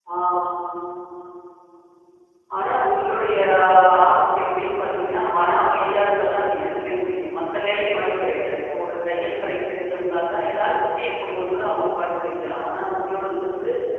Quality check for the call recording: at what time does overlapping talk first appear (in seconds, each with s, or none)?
none